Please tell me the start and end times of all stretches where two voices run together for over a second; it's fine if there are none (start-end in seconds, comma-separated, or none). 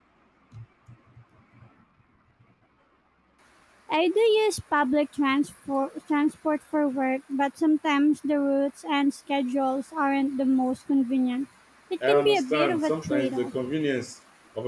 12.1-13.5